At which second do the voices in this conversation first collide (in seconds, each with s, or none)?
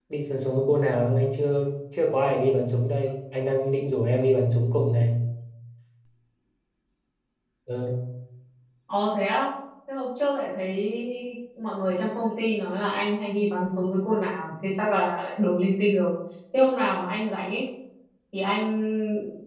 none